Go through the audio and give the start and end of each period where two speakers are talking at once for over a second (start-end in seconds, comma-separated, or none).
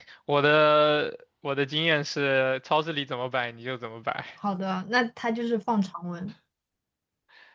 none